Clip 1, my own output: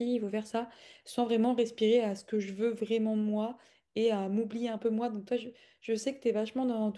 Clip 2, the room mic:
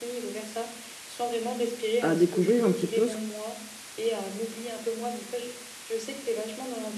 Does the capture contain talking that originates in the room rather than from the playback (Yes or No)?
Yes